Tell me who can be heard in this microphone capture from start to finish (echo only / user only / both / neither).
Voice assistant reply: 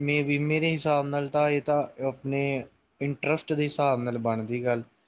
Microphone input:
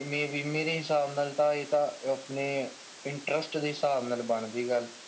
echo only